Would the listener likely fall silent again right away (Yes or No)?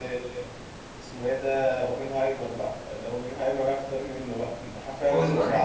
Yes